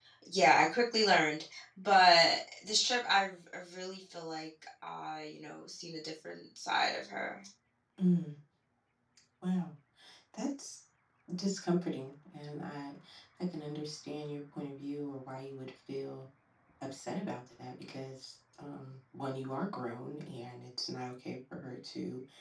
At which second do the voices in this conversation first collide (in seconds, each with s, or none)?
none